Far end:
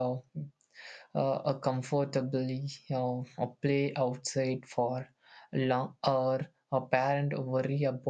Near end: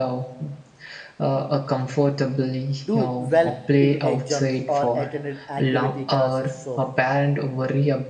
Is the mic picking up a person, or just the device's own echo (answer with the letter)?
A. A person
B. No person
A